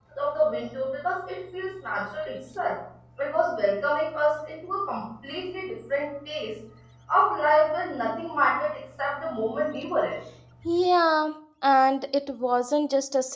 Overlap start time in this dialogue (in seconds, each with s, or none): none